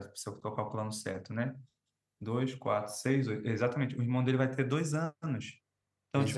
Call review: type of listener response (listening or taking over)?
listening